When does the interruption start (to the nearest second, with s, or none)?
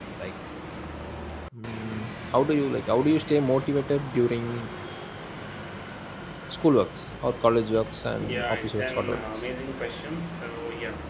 8 s